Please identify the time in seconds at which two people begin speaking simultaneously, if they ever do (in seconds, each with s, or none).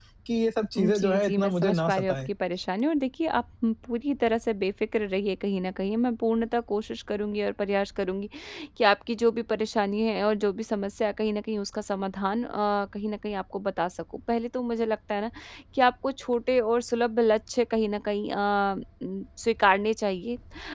0.8 s